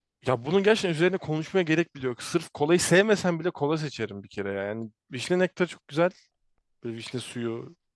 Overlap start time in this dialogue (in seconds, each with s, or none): none